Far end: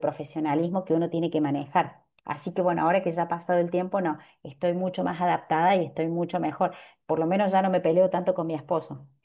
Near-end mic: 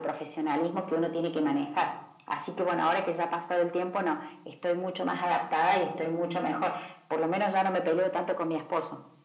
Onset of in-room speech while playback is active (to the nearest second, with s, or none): none